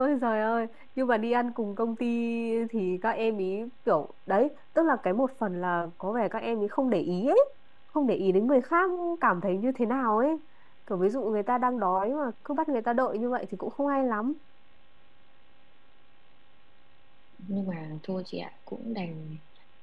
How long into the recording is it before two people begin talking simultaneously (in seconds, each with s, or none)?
none